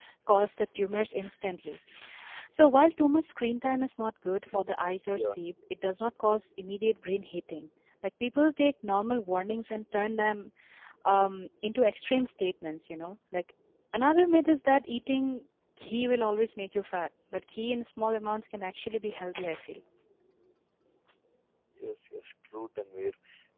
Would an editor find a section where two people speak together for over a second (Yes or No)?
No